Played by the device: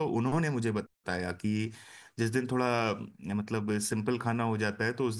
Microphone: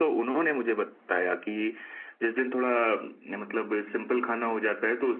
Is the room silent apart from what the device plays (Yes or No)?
Yes